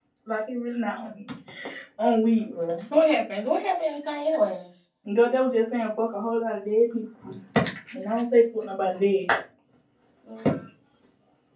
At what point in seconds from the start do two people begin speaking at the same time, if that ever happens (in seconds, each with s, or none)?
none